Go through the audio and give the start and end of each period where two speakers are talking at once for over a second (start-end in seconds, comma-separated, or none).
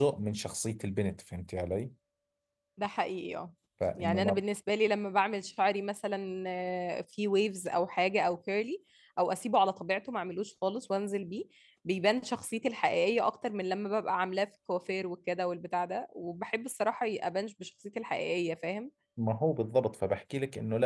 none